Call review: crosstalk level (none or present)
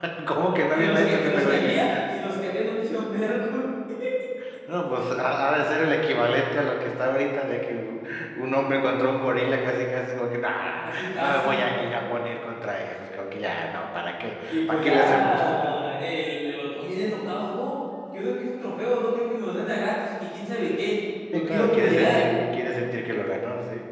present